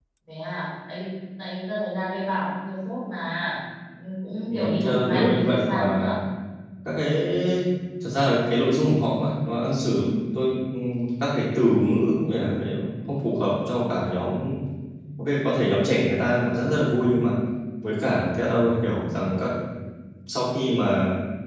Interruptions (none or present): present